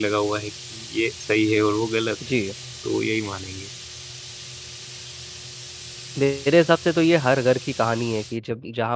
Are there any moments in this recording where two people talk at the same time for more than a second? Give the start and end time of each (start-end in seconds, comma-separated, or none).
none